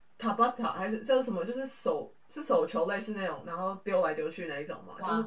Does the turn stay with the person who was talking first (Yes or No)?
Yes